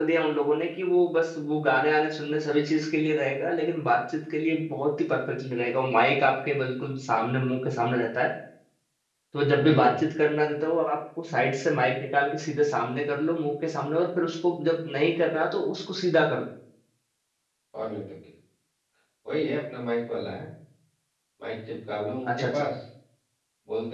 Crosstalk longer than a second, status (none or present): none